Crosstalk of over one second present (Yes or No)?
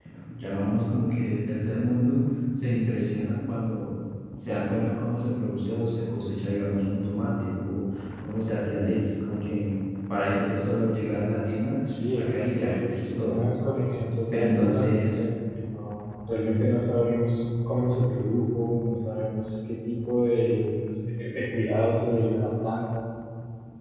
Yes